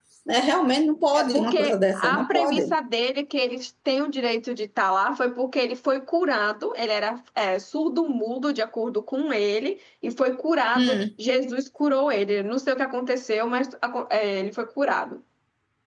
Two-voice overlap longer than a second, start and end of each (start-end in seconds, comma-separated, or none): 1.1-2.7